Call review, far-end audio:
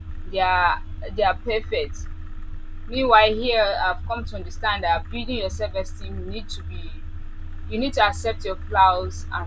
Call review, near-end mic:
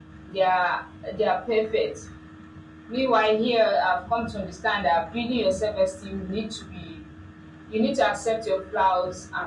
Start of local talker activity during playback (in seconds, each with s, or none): none